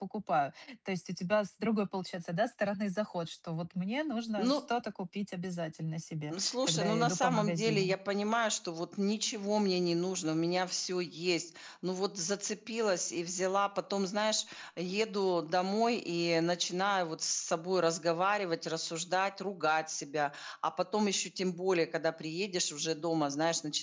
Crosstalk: present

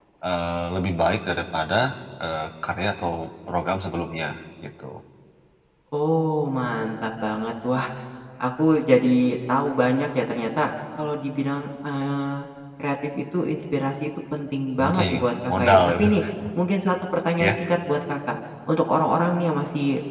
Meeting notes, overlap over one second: present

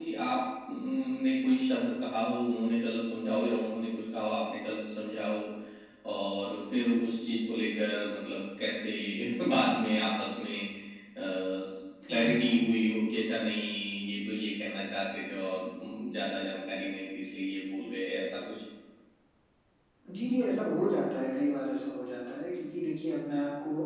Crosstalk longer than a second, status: none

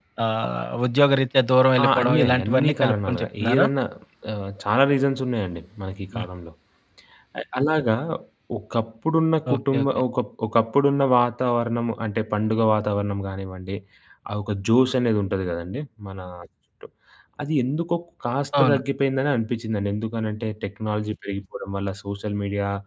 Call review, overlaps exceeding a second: present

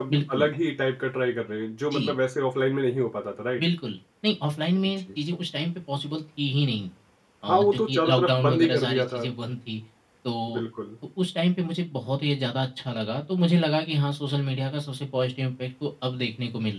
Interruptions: present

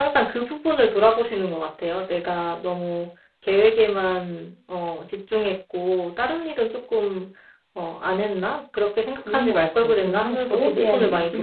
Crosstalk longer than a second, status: present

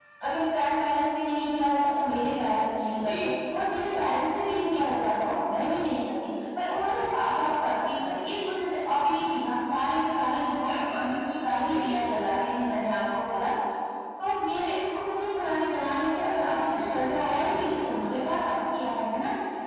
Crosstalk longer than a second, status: present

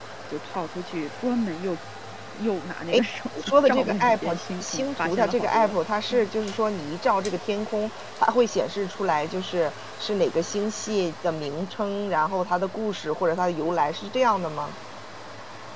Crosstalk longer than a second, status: present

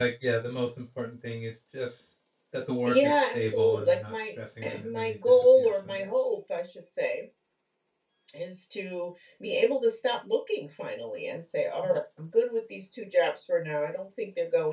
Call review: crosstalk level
present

